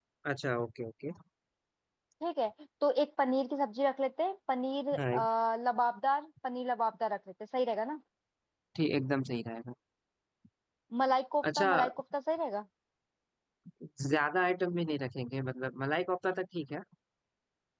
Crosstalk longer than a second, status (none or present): none